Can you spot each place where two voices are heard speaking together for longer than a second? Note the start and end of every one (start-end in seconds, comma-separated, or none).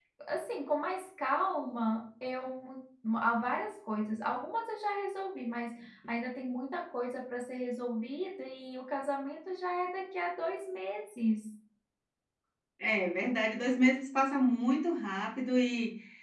none